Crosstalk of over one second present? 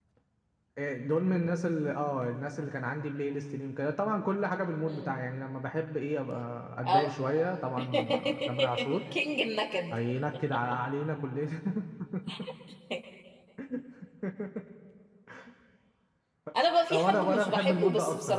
Yes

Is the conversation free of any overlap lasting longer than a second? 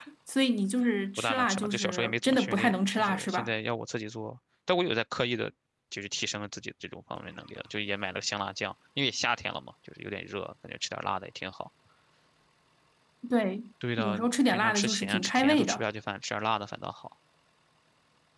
No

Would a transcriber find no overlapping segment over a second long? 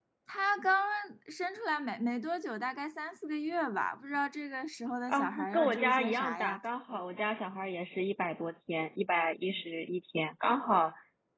No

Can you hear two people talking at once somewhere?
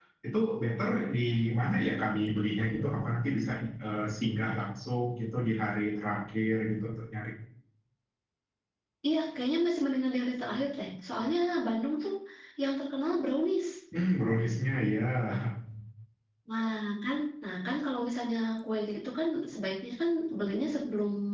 No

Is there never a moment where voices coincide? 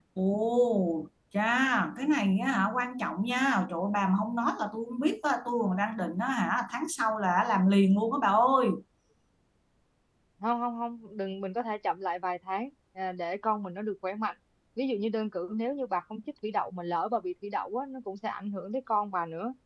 Yes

